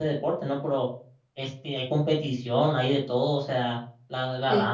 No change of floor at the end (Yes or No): Yes